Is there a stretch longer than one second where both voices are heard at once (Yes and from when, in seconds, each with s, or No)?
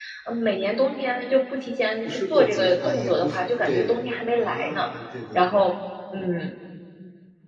Yes, from 2.0 s